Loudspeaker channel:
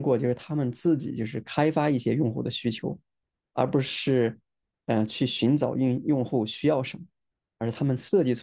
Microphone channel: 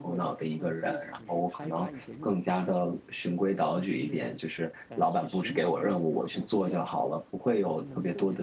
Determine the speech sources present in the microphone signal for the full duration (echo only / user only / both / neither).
both